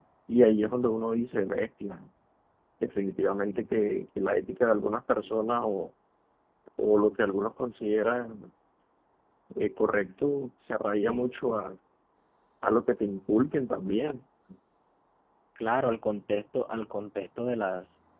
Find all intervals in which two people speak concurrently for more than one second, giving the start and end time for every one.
none

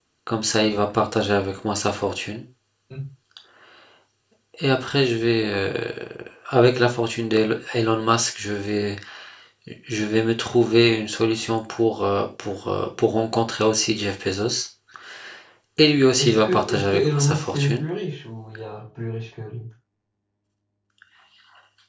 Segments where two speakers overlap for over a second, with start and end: 16.2-17.8

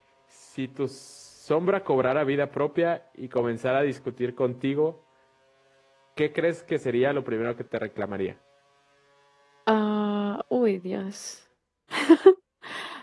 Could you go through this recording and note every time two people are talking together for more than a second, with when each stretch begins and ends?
none

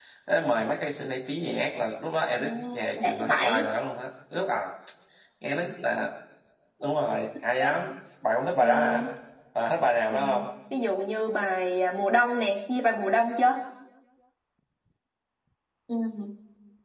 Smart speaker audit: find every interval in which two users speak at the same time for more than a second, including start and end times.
2.4-3.7

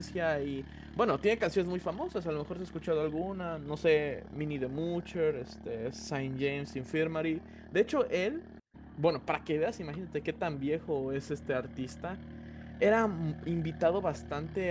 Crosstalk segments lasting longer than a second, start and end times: none

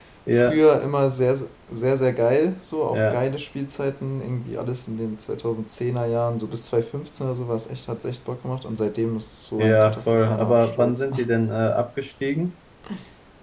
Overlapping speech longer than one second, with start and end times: 9.6-11.1

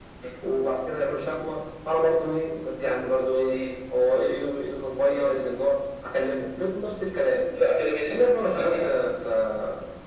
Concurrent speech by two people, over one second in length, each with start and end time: none

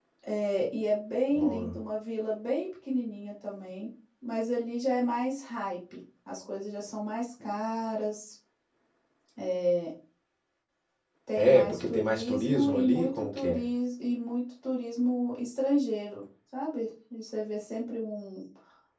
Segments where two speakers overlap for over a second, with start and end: 11.4-13.6

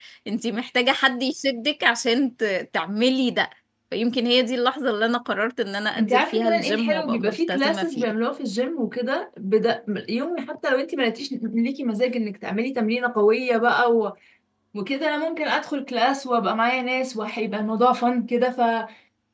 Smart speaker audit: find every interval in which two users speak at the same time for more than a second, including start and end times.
6.0-8.1

